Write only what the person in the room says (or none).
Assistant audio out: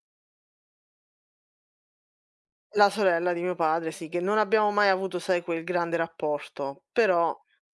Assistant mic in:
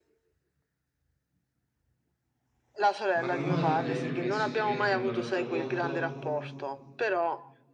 Ma come mai tu gli hai permesso di venderla per tuo conto?